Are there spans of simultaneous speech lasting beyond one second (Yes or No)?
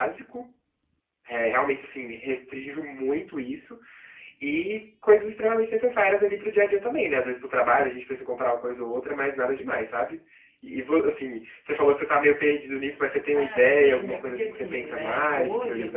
Yes